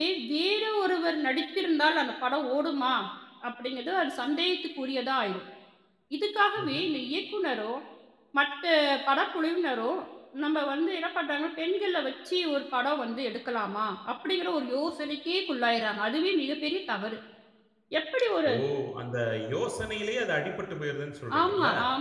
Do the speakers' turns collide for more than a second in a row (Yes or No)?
No